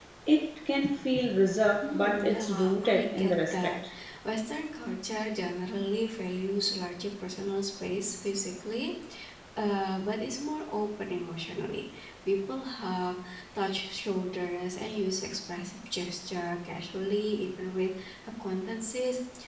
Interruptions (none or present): present